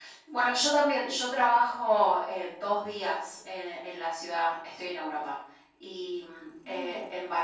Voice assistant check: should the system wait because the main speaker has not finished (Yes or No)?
Yes